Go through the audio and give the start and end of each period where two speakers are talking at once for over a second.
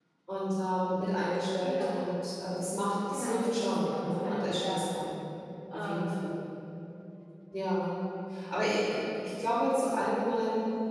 3.1-4.8

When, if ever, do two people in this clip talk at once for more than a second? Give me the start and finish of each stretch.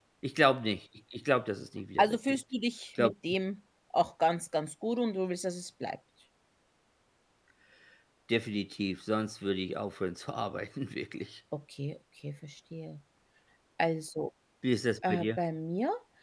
none

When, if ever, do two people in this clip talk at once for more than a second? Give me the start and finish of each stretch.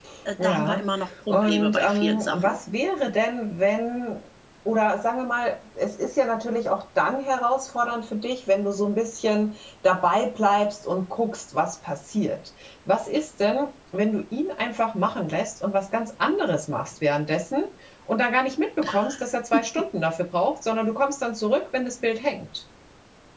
1.3-2.6

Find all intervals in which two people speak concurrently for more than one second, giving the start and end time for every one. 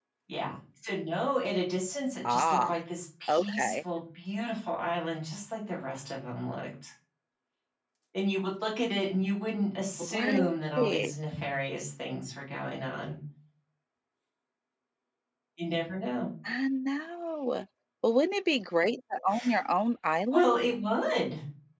none

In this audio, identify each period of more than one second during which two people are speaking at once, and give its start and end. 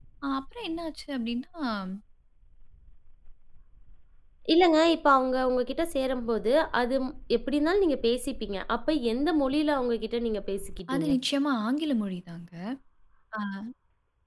none

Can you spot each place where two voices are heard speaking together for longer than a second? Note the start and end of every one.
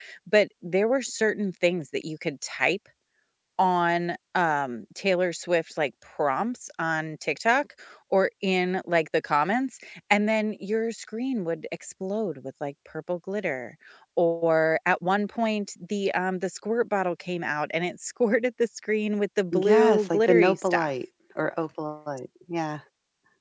19.5-20.9

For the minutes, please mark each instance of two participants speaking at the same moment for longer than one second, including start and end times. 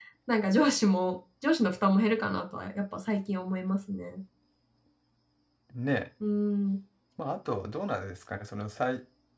none

